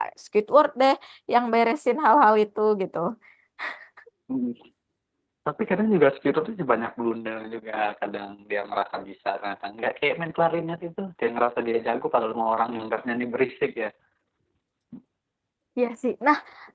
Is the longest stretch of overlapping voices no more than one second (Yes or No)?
Yes